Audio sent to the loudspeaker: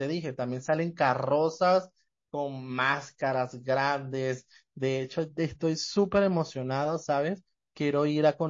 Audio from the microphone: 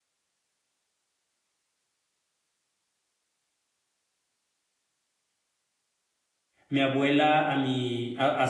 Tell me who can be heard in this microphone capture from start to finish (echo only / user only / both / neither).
user only